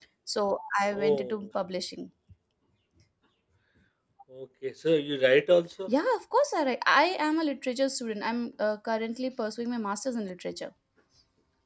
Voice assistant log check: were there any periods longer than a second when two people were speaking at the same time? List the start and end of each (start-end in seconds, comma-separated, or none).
none